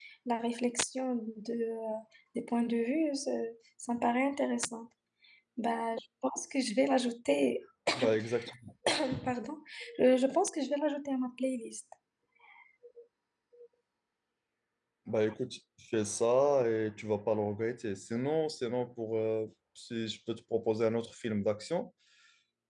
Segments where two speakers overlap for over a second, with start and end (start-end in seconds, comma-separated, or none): none